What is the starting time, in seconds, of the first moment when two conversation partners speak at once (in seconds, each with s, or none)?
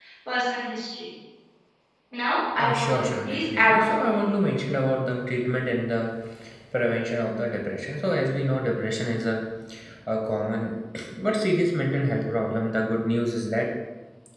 2.6 s